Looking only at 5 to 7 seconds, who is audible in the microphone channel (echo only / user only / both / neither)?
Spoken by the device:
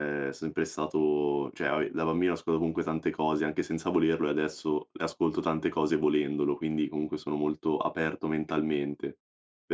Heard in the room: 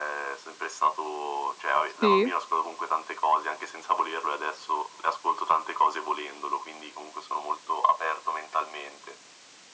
echo only